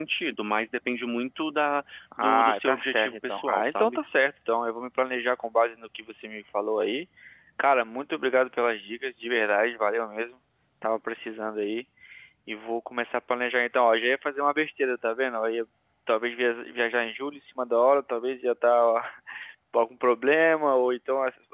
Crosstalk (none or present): present